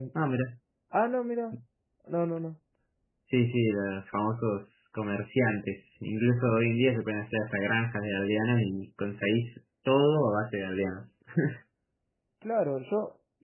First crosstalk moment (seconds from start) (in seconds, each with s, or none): none